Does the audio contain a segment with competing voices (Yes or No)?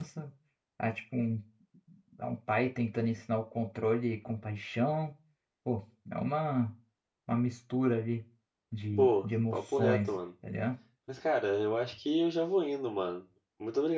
Yes